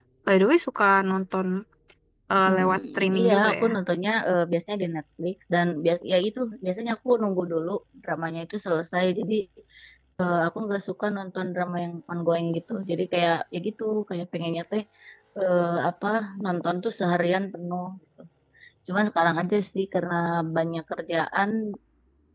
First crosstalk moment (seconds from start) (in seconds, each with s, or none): 2.5 s